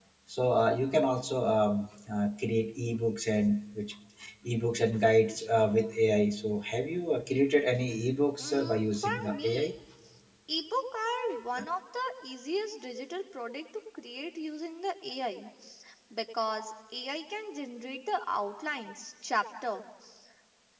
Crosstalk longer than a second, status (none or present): present